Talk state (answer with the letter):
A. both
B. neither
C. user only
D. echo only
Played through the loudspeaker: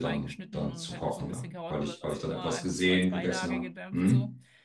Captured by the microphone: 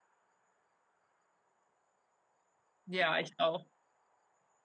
C